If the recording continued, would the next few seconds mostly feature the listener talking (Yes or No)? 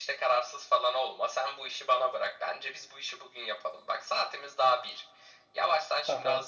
No